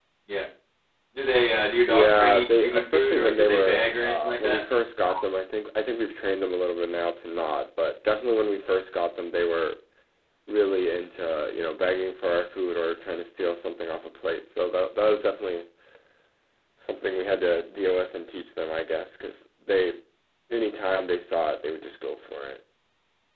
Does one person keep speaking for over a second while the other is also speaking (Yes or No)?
Yes